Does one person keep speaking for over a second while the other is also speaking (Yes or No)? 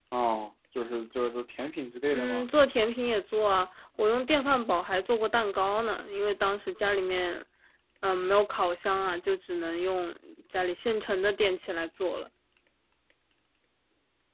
No